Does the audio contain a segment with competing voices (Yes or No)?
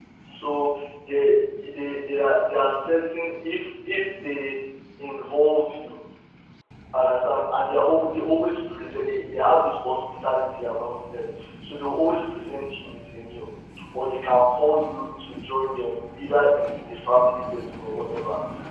No